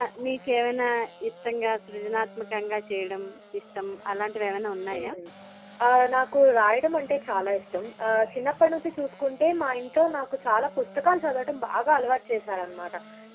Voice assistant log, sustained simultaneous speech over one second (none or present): none